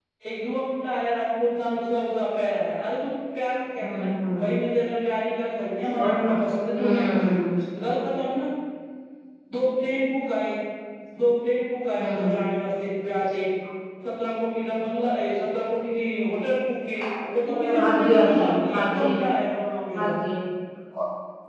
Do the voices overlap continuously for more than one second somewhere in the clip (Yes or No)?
Yes